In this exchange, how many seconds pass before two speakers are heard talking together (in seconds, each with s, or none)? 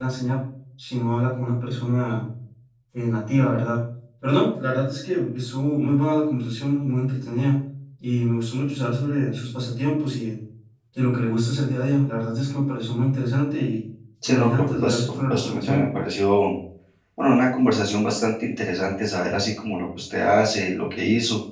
14.3 s